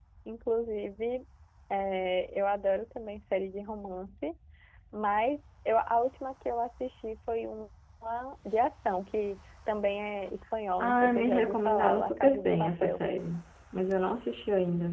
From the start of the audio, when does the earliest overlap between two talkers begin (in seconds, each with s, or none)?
10.8 s